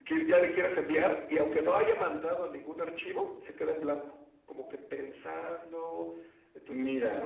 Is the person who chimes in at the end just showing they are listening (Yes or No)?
No